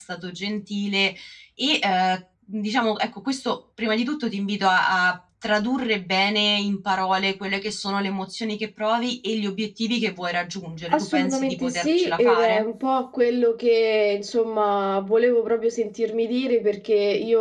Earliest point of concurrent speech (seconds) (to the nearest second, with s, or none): 11 s